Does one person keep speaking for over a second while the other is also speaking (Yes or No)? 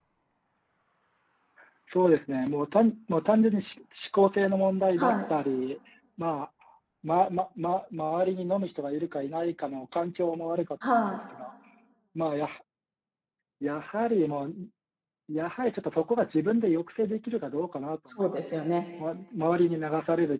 No